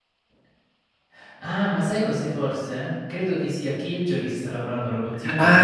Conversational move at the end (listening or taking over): taking over